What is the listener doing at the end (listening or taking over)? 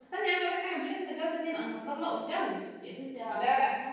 taking over